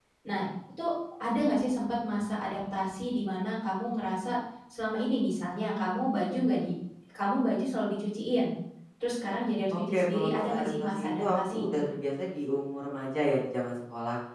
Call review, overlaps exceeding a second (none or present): present